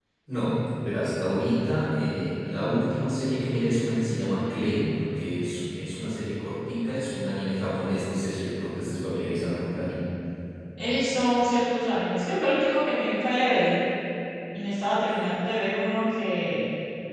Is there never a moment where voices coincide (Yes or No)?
Yes